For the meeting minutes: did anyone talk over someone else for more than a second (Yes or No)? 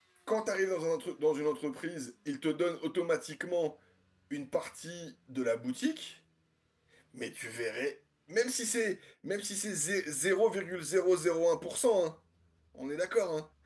No